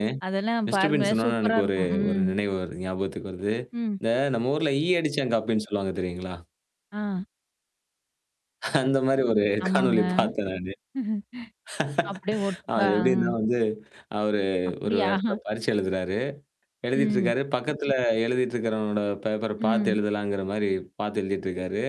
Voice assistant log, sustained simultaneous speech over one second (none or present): present